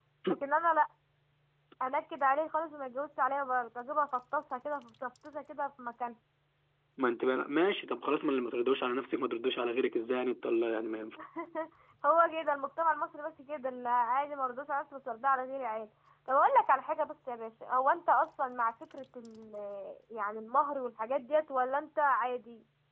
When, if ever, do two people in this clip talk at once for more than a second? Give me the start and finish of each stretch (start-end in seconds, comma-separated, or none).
none